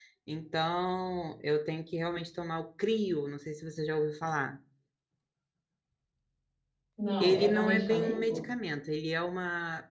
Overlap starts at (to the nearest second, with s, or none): 7 s